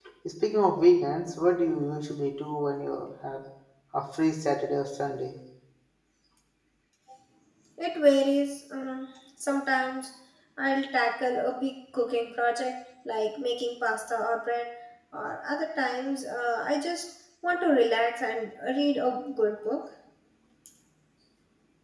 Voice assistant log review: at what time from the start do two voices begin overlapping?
none

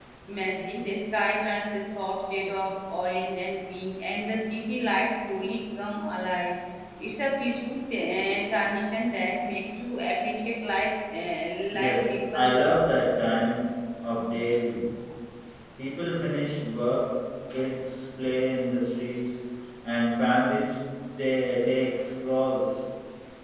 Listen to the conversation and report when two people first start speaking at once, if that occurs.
11.7 s

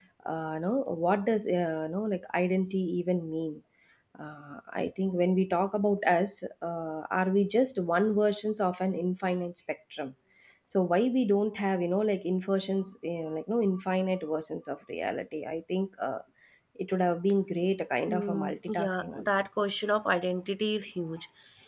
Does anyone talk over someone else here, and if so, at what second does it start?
18.1 s

